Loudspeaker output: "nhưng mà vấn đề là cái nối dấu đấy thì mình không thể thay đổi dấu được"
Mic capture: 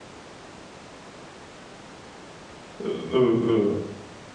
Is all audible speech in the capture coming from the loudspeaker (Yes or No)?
No